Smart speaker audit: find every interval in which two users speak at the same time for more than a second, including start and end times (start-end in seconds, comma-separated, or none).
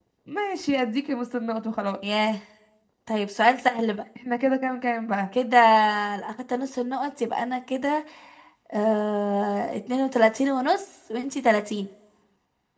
none